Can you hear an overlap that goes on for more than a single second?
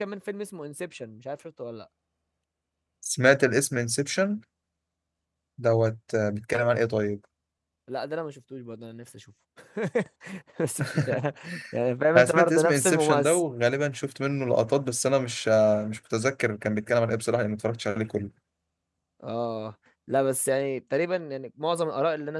Yes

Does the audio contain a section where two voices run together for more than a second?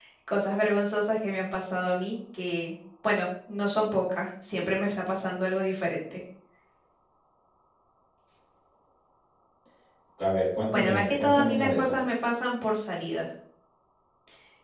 Yes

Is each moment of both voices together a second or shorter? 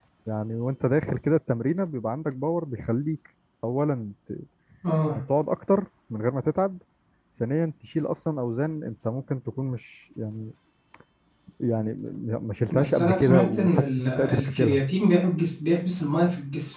No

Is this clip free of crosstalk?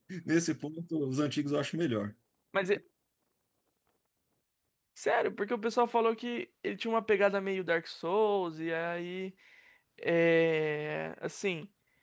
Yes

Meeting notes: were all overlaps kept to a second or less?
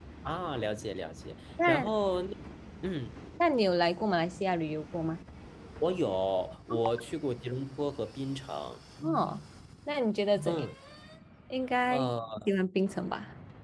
Yes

